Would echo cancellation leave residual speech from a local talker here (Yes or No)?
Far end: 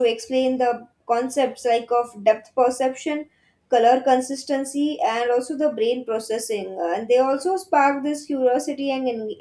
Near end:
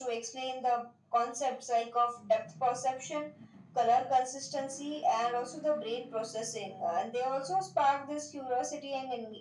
No